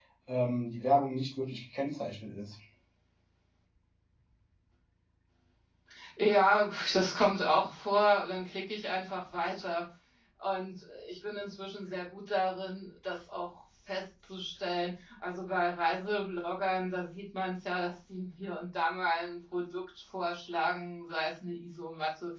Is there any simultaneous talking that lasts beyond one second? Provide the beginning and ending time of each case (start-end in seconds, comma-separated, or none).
none